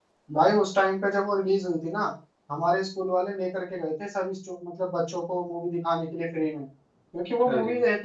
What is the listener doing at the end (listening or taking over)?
listening